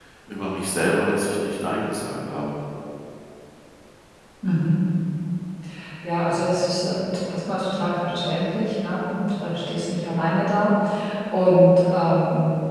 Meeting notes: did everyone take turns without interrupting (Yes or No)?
Yes